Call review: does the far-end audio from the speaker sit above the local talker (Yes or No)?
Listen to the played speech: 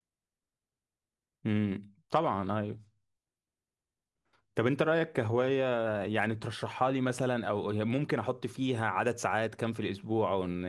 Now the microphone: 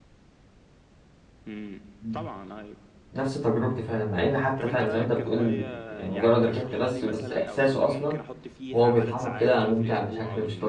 No